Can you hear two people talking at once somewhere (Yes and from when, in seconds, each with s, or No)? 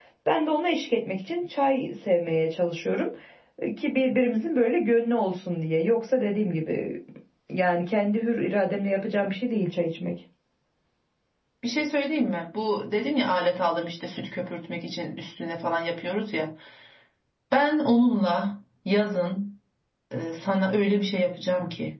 No